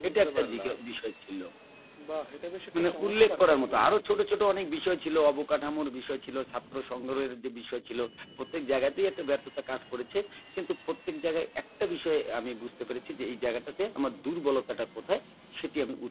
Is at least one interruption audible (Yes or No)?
Yes